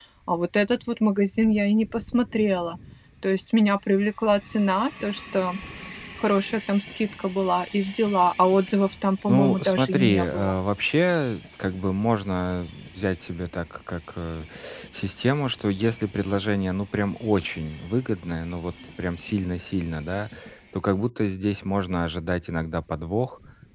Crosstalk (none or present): present